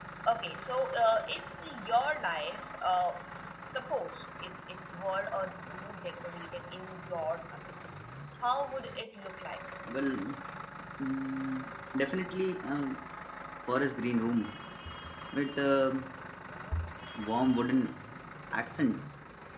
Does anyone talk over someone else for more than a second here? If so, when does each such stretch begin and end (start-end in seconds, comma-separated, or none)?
none